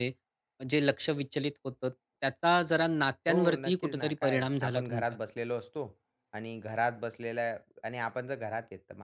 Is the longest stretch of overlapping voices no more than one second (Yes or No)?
No